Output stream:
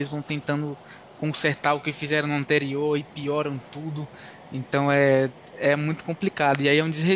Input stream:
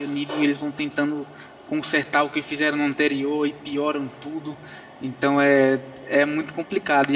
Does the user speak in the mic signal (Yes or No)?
No